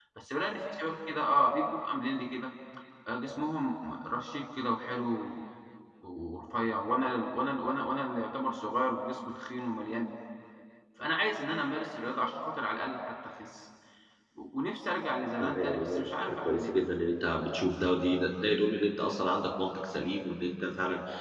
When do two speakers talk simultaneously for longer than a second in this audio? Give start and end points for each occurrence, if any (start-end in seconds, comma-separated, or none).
15.4-16.7